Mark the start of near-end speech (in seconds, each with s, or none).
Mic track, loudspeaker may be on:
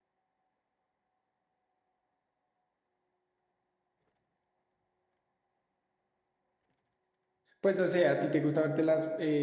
7.6 s